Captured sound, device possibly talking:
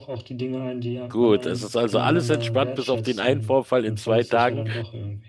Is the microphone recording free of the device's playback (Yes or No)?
No